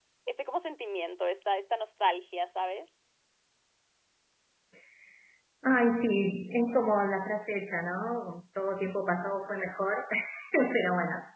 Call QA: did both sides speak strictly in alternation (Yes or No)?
Yes